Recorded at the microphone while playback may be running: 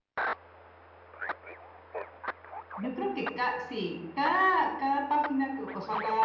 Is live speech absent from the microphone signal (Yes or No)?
Yes